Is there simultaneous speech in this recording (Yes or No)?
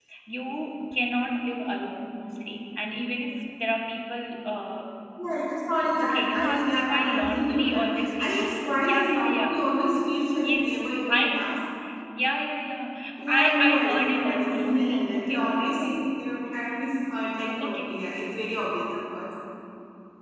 Yes